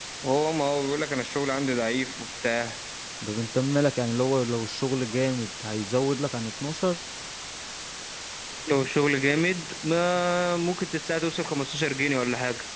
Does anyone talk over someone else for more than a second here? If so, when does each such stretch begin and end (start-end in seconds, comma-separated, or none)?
none